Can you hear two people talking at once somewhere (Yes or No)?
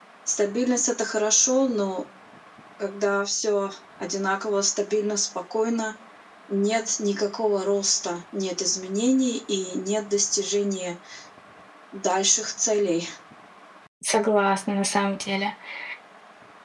No